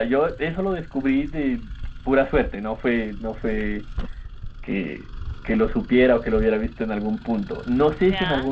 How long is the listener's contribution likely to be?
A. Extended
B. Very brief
B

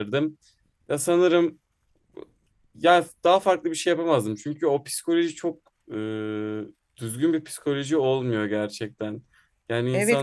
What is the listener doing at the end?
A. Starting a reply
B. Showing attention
A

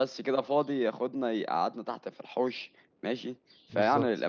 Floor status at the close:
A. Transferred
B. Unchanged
B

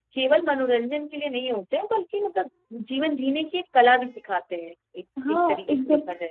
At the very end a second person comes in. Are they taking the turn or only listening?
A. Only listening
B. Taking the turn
B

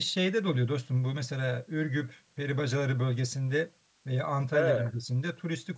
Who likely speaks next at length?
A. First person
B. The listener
A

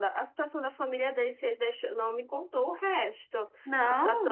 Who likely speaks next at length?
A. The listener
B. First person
B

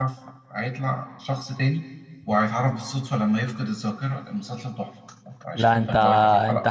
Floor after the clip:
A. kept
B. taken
B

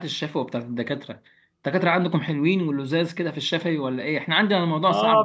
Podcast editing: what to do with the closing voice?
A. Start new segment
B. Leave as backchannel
A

